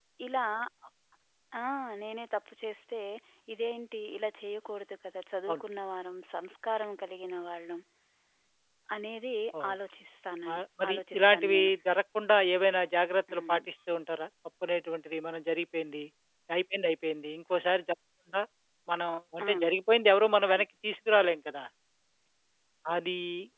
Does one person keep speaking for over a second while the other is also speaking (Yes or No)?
Yes